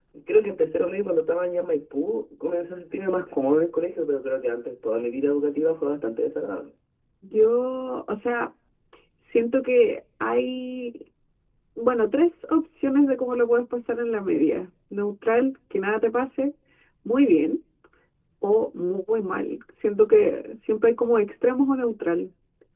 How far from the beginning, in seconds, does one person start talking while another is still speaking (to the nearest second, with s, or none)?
none